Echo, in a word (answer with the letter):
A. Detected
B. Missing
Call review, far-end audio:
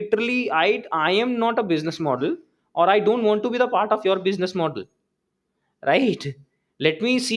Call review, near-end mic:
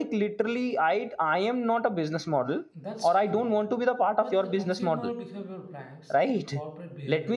A